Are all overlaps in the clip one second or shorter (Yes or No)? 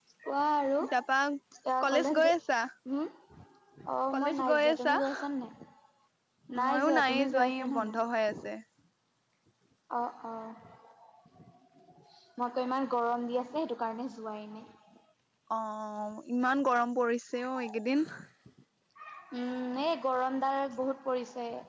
No